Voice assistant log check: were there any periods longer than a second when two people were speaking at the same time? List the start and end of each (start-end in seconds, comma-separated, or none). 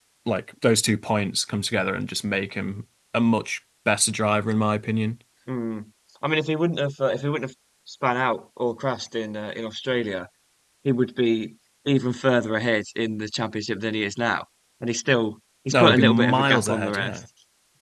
15.7-17.2